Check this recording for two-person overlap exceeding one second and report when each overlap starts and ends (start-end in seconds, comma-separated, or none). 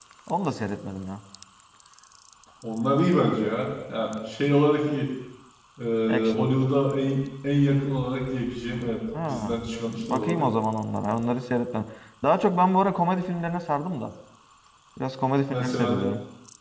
none